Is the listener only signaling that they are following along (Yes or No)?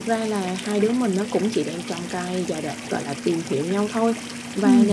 Yes